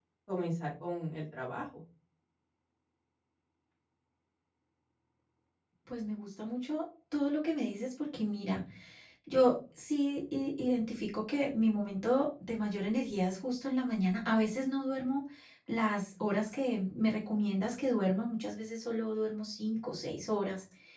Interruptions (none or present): none